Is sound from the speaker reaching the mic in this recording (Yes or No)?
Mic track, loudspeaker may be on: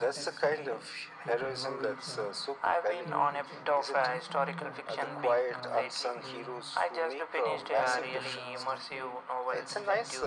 Yes